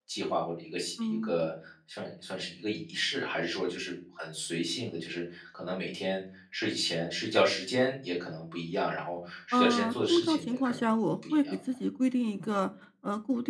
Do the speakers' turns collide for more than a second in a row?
Yes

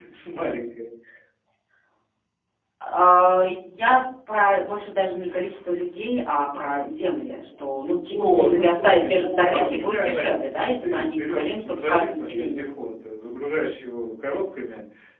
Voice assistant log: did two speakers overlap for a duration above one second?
Yes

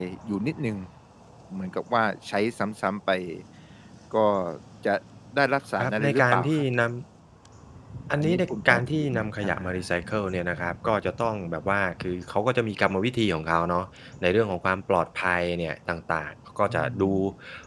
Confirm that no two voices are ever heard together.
No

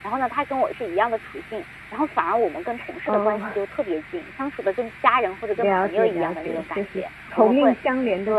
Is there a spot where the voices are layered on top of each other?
Yes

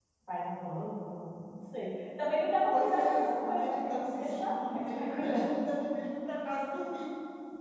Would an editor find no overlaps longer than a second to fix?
No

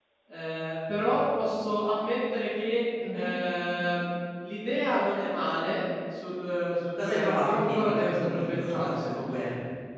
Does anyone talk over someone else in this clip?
Yes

